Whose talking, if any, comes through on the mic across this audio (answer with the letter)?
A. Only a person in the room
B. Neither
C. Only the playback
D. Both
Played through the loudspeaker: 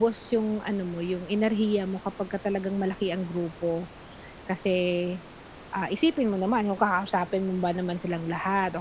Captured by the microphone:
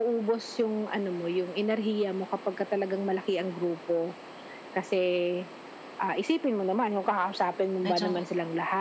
D